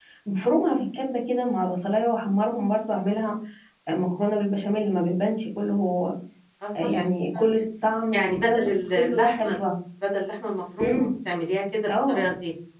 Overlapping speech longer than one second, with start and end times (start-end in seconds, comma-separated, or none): 8.1-9.6